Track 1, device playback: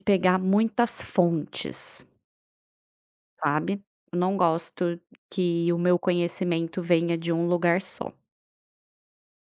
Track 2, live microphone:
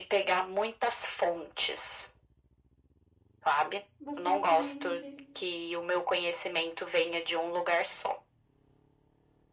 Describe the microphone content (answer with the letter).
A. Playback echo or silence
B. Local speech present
B